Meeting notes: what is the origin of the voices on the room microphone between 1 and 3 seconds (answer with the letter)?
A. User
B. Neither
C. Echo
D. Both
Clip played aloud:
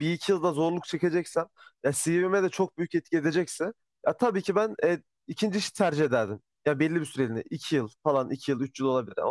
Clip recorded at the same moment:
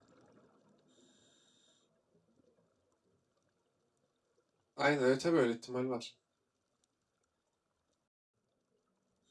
B